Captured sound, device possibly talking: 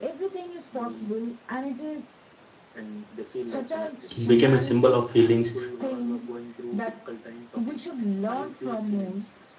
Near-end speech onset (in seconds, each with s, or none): 4.2 s